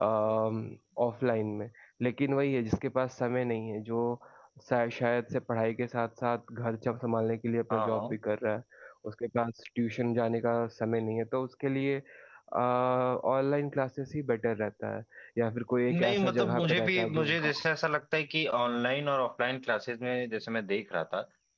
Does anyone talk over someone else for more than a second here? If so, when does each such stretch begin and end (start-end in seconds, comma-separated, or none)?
15.9-17.6